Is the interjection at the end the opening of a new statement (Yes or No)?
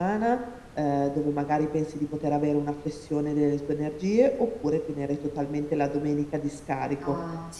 No